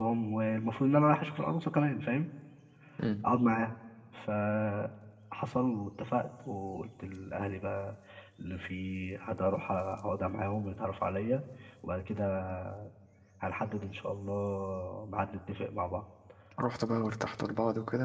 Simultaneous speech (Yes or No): No